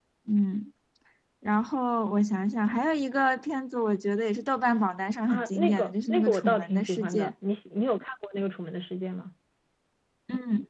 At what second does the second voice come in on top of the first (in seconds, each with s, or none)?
5.3 s